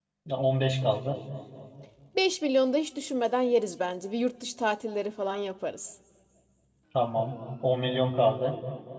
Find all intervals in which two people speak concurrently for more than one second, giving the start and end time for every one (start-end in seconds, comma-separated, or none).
none